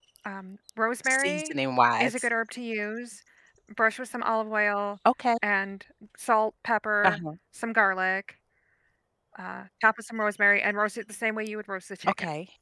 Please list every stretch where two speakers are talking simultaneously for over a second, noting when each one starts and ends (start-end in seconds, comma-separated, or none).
none